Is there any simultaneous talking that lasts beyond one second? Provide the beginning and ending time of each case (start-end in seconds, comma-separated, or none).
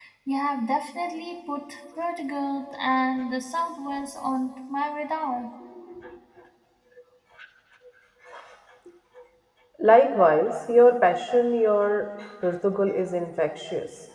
none